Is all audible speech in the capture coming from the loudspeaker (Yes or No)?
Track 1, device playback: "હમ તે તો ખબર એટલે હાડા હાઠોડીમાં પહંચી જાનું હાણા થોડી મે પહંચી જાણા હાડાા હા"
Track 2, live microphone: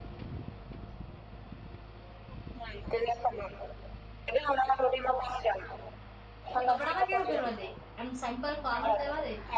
No